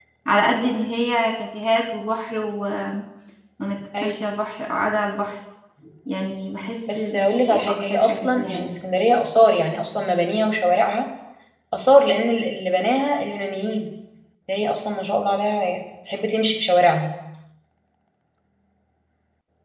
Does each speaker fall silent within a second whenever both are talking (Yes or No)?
No